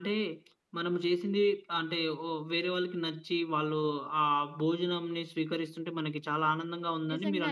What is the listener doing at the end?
taking over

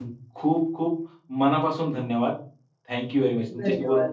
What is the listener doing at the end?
listening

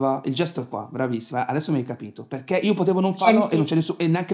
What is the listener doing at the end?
listening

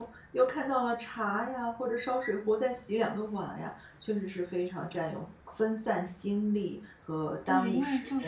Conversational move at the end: taking over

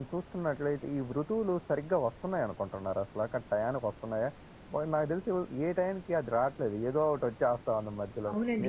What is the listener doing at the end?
taking over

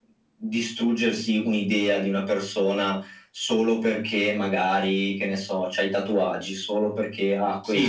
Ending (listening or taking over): taking over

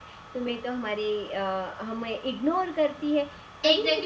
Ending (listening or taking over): taking over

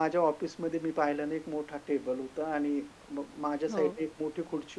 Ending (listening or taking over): listening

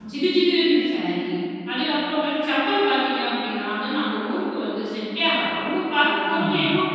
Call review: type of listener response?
listening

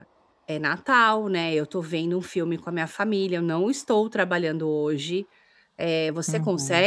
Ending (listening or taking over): listening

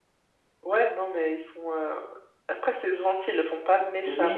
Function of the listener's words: taking over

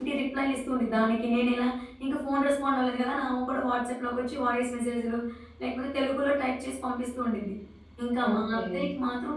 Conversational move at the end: listening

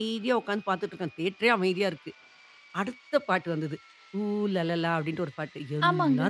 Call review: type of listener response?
listening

